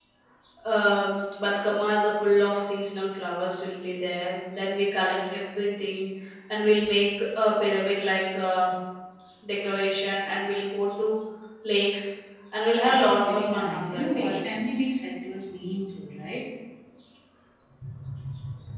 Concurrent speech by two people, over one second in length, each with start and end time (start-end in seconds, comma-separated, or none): 12.8-14.3